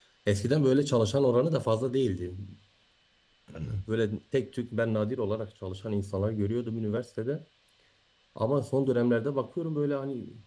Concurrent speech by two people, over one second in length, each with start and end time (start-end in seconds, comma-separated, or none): none